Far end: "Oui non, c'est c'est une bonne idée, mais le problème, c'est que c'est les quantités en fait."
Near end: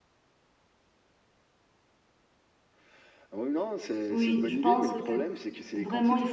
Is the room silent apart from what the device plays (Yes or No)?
No